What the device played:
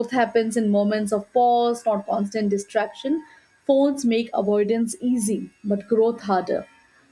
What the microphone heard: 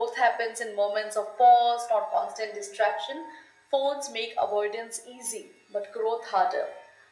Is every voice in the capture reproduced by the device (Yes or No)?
Yes